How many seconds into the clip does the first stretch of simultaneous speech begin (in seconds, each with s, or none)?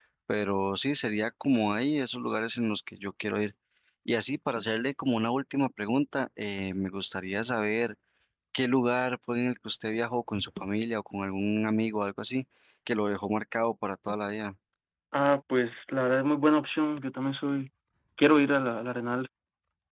none